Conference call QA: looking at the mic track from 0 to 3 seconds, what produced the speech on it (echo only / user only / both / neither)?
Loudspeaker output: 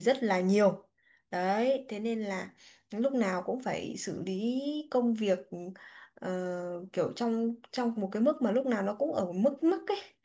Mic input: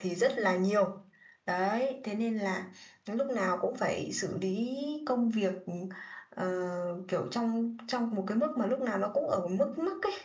echo only